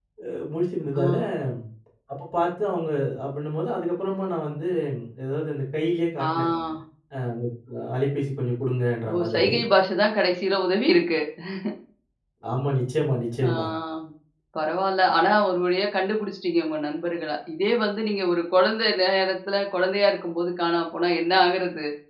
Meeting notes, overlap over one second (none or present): none